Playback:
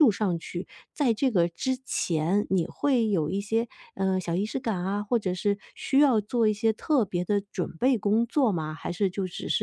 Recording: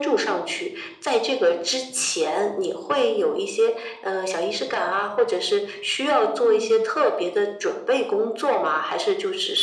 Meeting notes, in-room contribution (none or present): present